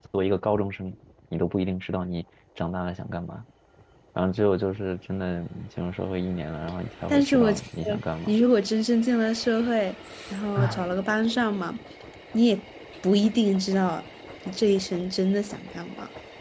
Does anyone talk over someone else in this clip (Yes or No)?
Yes